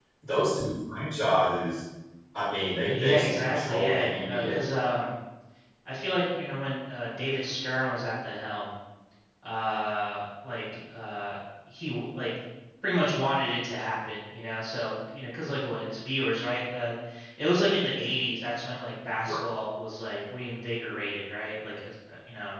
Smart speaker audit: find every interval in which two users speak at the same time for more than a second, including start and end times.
2.9-4.6

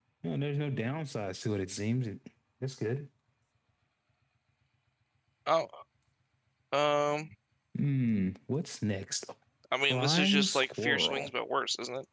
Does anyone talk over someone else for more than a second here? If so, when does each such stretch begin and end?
9.9-11.3

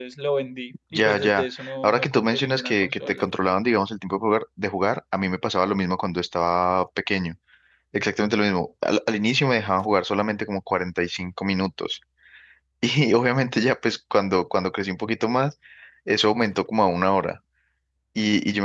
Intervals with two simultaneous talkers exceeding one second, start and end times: 0.9-3.3

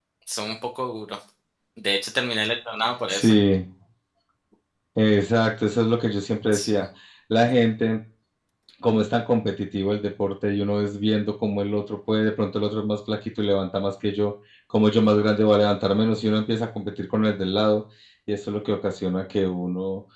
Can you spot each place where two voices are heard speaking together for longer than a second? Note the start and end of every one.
none

